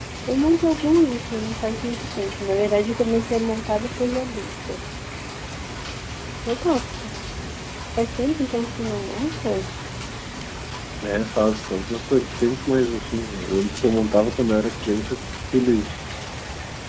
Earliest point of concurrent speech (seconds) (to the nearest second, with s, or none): none